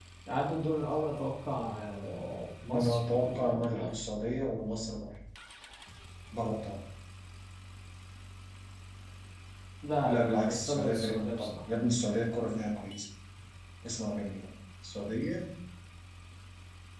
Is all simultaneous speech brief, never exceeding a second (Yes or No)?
No